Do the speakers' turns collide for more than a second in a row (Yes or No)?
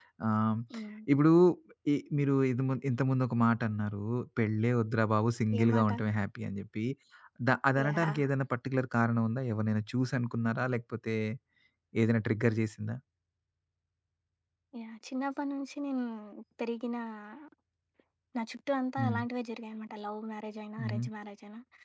No